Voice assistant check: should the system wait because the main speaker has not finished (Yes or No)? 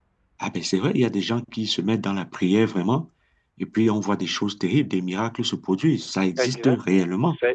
No